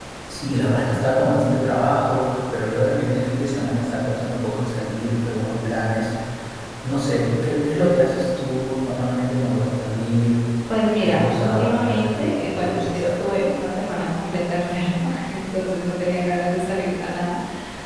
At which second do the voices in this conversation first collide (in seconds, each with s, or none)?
11.0 s